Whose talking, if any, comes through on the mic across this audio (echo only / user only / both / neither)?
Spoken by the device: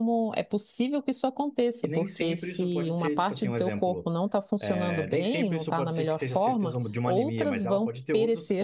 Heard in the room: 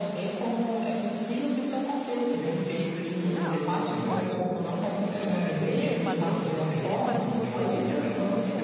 both